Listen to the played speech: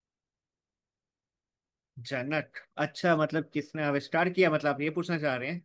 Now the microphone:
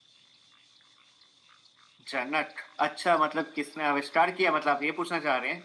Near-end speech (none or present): none